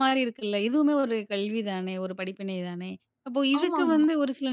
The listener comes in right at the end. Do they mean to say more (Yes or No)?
No